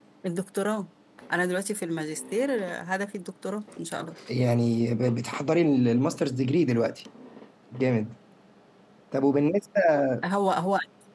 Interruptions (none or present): none